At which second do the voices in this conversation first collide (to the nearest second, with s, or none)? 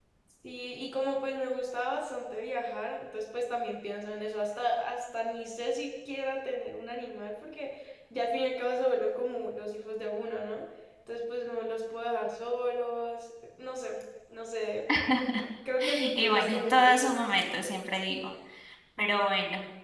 16 s